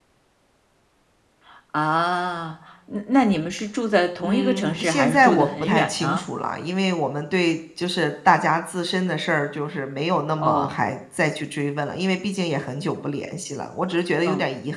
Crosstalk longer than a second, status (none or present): present